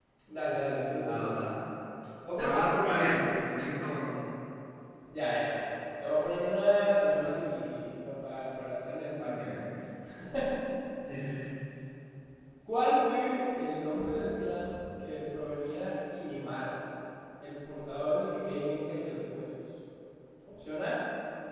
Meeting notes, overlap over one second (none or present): none